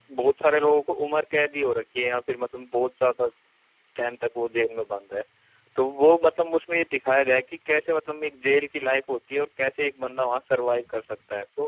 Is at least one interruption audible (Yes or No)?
No